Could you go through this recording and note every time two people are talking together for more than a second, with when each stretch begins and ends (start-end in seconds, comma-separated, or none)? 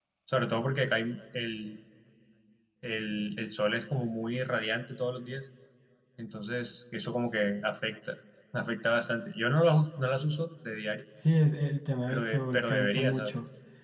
12.1-13.3